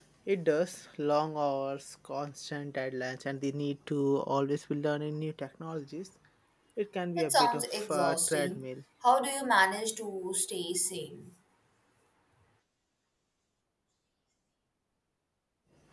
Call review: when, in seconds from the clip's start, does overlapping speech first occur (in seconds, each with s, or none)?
7.2 s